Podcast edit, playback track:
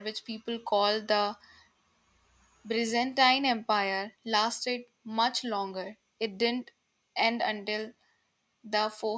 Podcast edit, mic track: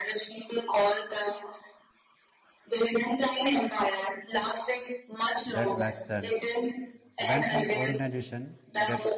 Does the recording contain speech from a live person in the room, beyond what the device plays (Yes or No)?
Yes